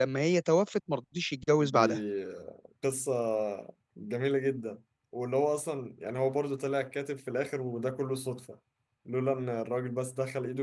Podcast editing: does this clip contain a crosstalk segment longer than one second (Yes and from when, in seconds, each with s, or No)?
No